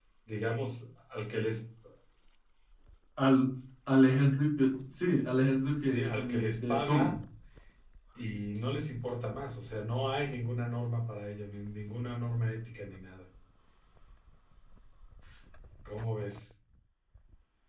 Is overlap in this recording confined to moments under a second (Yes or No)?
No